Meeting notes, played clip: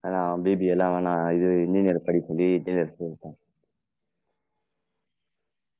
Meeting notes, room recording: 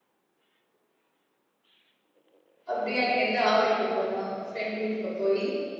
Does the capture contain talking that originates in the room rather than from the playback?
Yes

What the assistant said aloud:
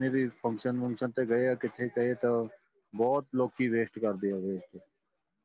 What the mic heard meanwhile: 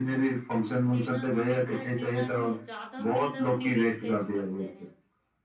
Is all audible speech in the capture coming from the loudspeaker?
No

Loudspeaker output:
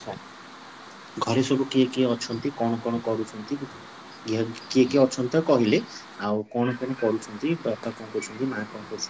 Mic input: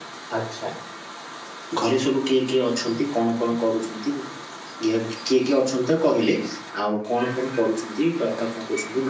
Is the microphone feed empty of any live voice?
Yes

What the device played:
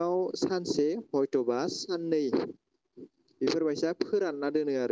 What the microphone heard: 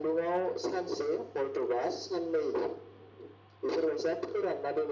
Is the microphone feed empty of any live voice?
Yes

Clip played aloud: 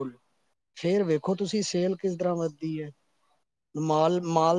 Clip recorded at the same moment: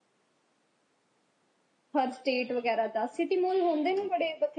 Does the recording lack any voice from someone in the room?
No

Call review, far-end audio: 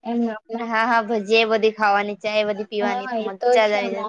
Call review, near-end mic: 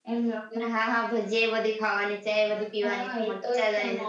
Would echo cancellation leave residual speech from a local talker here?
No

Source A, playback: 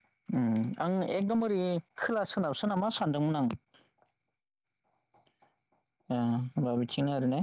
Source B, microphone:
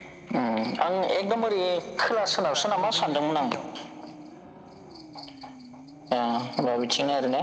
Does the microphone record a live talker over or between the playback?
Yes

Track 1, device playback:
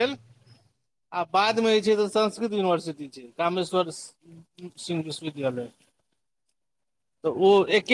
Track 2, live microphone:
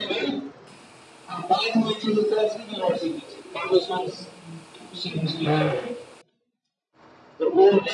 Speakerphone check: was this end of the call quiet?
No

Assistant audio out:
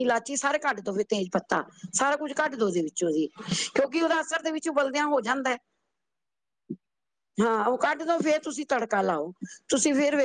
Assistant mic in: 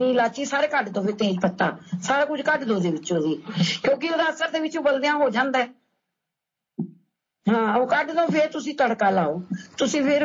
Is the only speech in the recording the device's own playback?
Yes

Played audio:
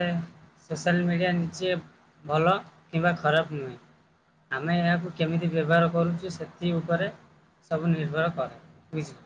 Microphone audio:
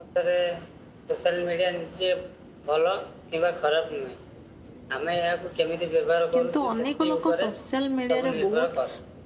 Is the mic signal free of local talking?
No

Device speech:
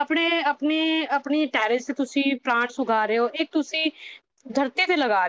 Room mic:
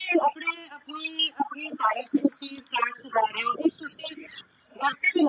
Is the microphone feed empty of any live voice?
Yes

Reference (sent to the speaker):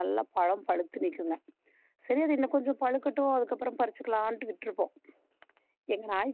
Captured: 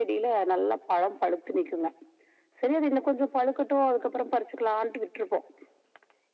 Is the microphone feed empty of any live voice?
Yes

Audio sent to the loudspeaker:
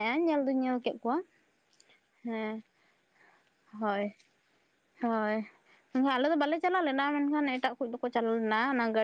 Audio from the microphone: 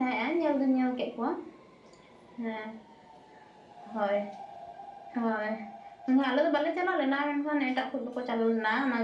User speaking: No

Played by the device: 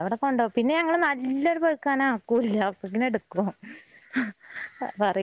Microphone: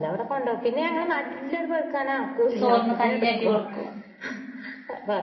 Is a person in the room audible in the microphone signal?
Yes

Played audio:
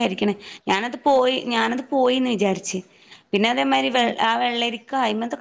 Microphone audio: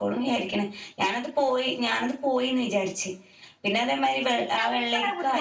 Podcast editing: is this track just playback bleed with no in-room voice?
No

